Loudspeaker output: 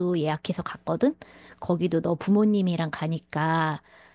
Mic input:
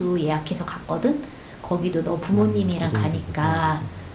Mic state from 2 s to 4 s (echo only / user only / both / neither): both